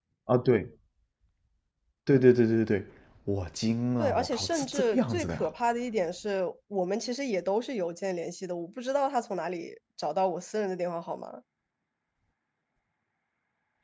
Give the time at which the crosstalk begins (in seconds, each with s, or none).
4.0 s